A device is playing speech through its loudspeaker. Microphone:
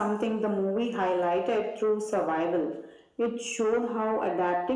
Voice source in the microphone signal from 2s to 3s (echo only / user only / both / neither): echo only